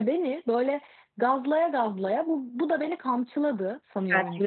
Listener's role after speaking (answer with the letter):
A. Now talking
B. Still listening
A